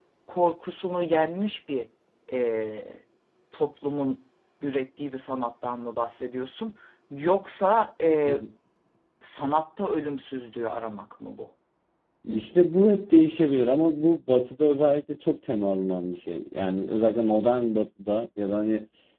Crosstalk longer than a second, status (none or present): none